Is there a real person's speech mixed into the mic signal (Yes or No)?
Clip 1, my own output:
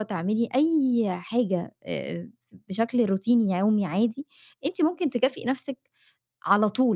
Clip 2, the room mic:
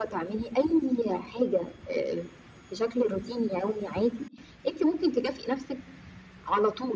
No